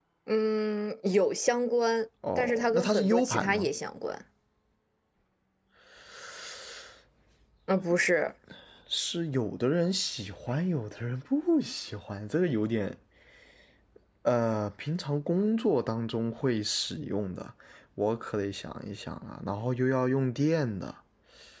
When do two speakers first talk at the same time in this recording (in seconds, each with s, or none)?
2.2 s